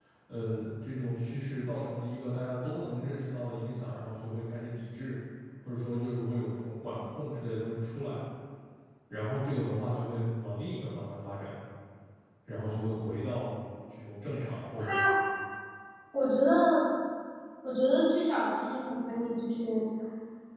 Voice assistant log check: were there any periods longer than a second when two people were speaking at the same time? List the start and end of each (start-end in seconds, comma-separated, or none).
none